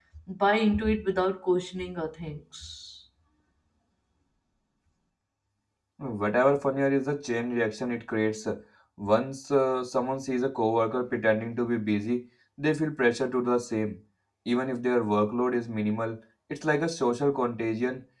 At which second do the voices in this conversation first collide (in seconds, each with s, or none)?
none